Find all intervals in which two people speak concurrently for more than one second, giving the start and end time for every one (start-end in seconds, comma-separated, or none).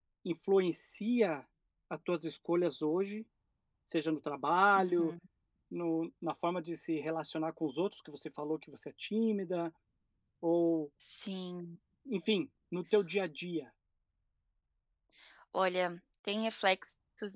none